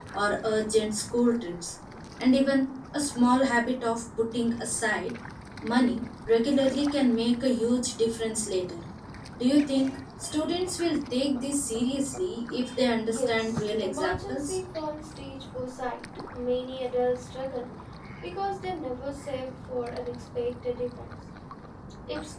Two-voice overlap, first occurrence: 13.0 s

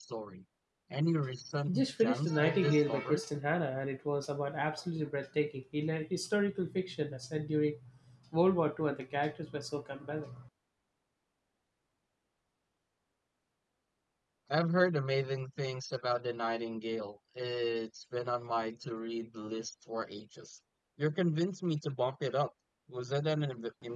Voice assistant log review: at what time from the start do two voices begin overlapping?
1.7 s

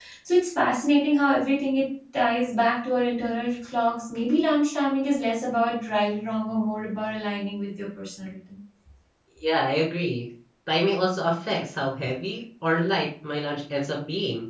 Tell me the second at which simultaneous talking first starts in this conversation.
none

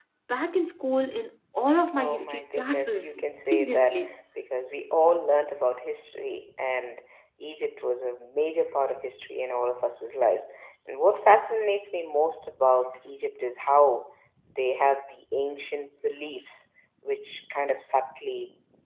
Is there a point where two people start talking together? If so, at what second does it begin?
1.9 s

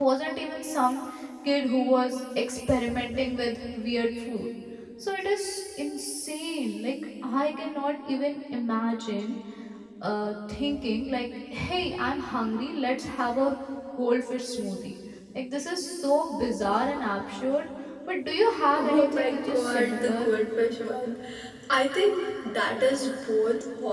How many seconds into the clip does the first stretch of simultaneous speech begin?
18.8 s

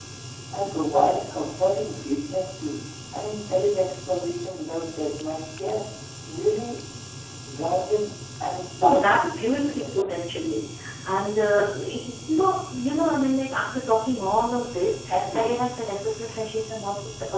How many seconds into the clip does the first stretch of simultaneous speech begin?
8.8 s

